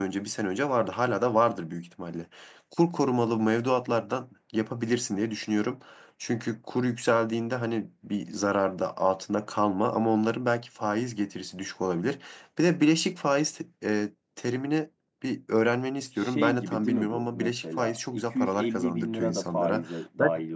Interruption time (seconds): 16.2 s

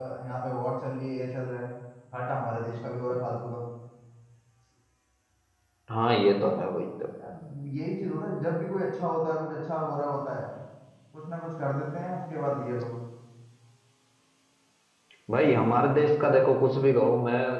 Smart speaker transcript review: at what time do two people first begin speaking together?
none

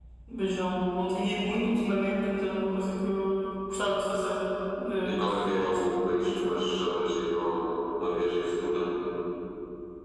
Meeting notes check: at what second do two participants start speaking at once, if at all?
5.0 s

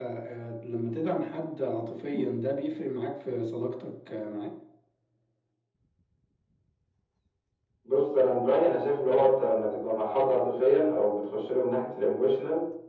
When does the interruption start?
none

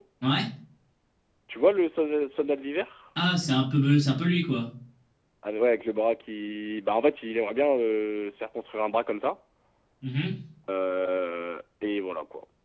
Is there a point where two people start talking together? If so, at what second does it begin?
none

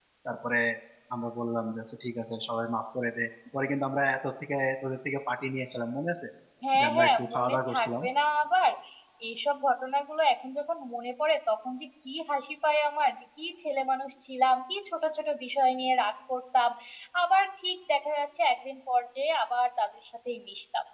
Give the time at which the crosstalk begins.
6.8 s

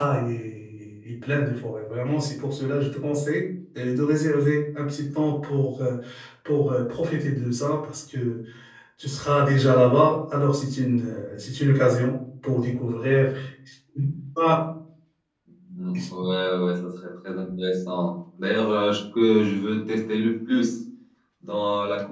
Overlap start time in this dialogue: none

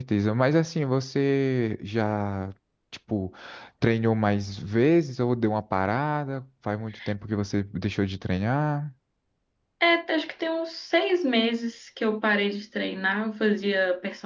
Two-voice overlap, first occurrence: none

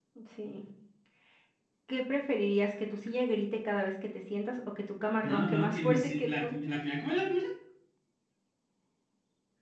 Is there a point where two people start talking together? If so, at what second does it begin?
5.2 s

